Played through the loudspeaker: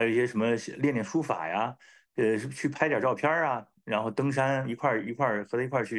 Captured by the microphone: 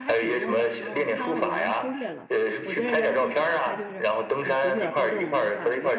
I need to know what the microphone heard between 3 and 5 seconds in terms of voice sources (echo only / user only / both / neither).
both